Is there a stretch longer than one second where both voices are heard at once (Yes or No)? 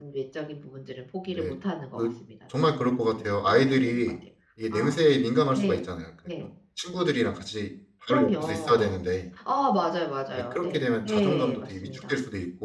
Yes